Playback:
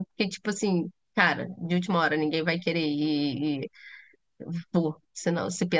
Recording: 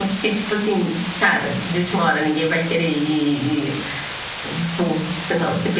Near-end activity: none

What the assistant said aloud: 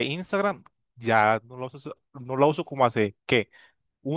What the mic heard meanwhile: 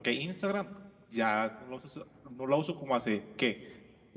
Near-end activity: none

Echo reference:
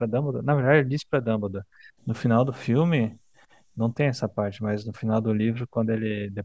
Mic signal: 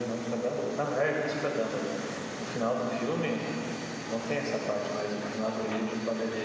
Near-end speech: none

